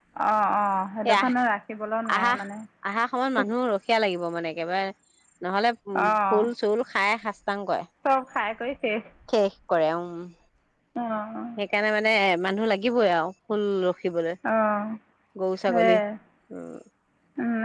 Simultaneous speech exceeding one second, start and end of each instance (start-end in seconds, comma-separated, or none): none